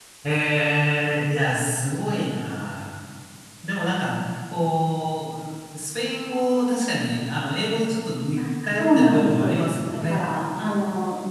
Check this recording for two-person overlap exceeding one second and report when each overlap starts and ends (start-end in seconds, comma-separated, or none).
8.8-10.2